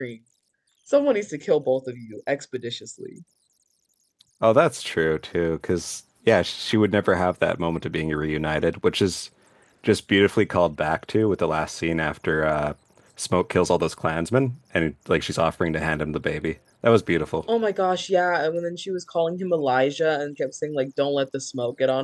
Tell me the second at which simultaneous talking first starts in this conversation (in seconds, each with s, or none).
none